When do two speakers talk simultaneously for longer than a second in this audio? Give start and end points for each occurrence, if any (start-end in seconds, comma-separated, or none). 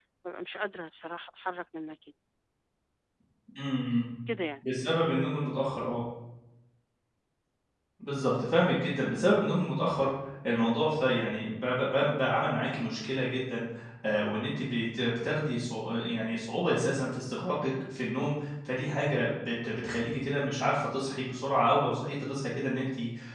none